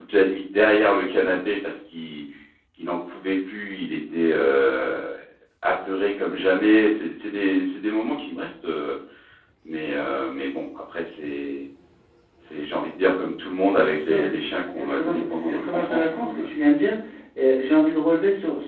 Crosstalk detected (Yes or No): Yes